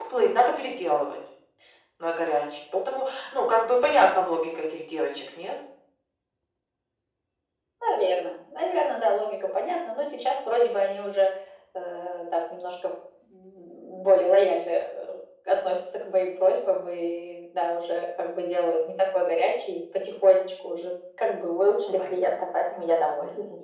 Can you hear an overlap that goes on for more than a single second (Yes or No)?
No